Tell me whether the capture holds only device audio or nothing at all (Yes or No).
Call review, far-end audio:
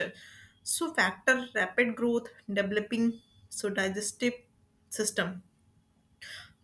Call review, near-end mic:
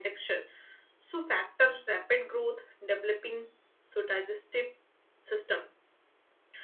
Yes